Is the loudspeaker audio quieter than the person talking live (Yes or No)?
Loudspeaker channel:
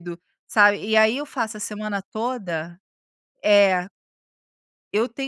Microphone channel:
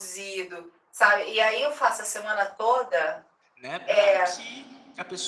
No